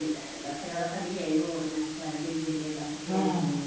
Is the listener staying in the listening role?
Yes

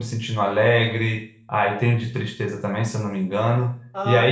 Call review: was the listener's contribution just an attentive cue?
No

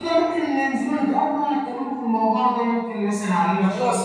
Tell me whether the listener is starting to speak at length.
Yes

